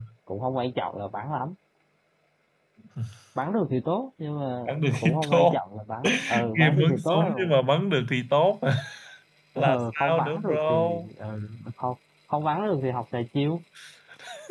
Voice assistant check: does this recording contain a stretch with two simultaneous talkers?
Yes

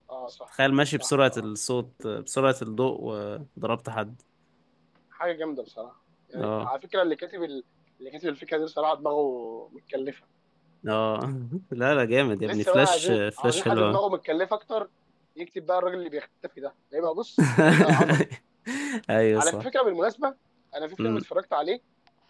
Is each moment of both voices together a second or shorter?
No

